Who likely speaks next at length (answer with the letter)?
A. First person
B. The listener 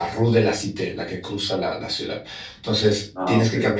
A